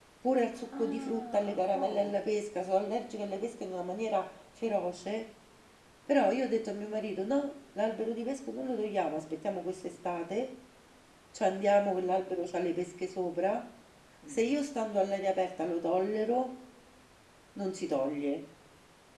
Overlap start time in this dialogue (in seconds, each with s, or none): 0.7 s